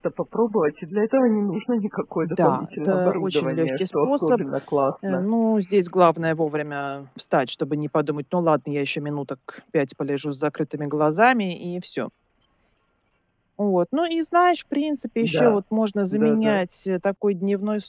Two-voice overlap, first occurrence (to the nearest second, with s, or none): 2 s